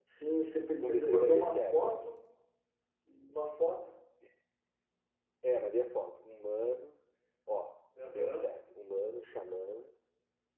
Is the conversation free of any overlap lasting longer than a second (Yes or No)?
No